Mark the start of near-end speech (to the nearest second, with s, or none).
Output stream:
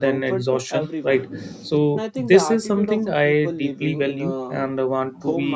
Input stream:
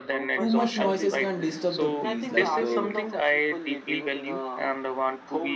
0 s